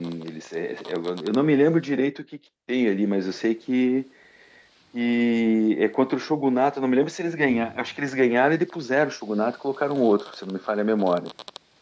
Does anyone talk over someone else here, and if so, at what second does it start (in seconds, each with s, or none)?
none